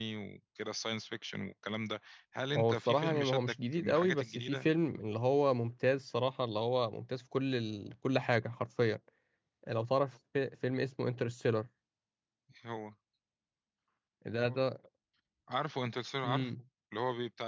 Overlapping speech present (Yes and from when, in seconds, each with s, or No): Yes, from 2.5 s